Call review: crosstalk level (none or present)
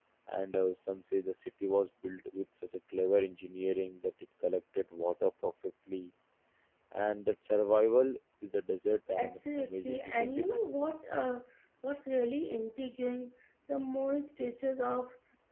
present